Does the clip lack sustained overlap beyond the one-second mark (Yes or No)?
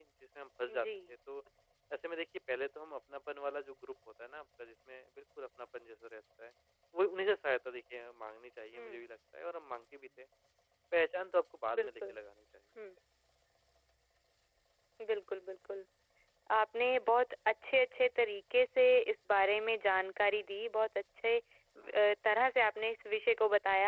Yes